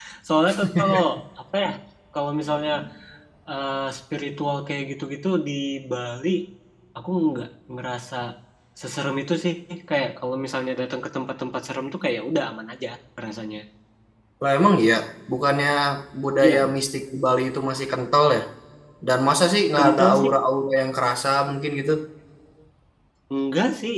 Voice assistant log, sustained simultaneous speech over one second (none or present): none